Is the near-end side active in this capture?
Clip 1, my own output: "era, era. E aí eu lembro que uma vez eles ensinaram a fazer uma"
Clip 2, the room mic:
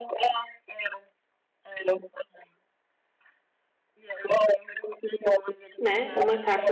Yes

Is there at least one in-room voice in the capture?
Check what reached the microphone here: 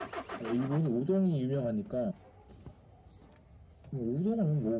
No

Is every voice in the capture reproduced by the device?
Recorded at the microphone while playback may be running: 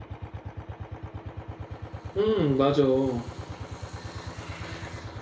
No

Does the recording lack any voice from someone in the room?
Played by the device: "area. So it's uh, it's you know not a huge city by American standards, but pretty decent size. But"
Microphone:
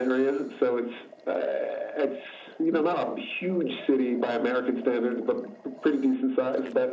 Yes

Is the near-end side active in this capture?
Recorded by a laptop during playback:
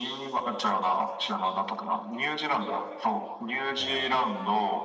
Yes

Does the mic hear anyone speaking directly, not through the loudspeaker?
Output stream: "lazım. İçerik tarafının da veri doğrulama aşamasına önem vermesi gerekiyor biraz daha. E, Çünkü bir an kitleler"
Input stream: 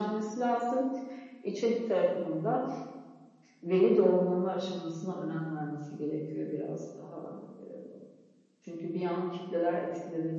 No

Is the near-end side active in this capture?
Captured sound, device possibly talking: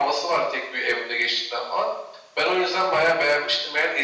No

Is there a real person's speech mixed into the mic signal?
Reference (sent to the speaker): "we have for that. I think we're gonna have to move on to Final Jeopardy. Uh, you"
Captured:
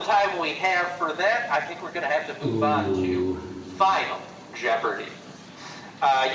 Yes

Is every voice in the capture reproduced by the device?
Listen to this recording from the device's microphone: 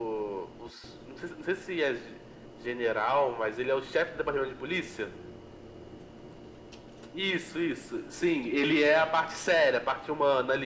Yes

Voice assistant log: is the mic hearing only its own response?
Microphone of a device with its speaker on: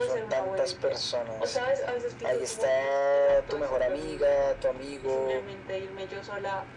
Yes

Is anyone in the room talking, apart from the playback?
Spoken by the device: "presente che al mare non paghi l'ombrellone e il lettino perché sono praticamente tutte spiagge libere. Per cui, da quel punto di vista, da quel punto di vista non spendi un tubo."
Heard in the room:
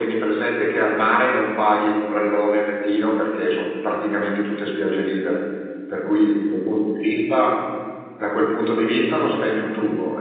No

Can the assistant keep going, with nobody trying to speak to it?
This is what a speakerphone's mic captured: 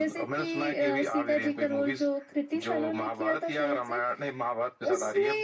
Yes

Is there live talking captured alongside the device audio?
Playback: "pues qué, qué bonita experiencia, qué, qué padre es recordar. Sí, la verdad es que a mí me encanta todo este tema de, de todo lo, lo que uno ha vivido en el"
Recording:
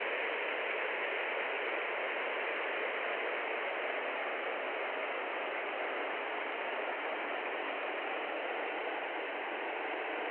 No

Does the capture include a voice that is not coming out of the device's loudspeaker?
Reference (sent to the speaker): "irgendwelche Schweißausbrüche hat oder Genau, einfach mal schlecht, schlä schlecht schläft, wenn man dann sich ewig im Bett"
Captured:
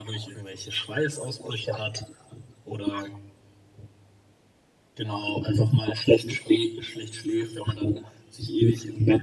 No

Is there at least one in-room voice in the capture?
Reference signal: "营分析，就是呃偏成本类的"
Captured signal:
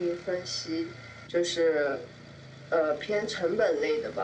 No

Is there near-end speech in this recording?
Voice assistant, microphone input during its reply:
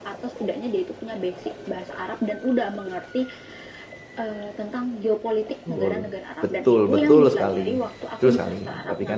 Yes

